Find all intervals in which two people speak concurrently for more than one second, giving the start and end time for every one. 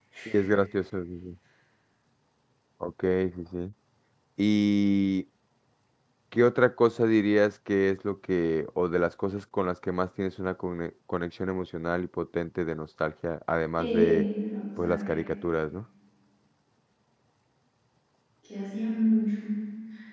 none

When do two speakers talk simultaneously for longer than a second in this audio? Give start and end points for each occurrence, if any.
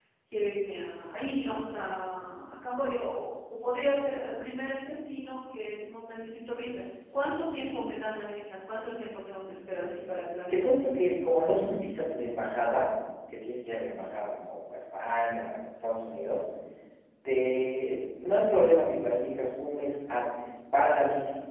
none

